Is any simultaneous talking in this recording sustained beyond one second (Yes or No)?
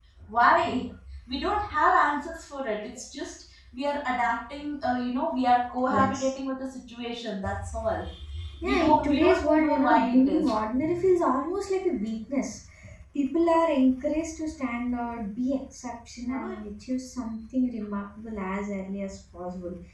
Yes